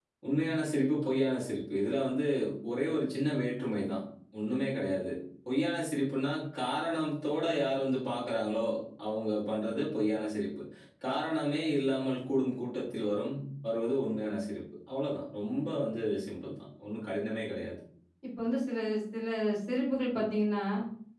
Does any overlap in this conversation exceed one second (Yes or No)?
No